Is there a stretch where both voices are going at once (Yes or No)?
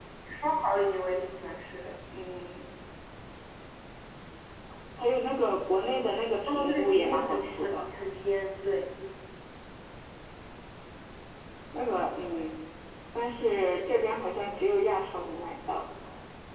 Yes